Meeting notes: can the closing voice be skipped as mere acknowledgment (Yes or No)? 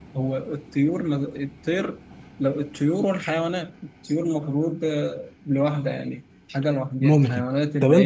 No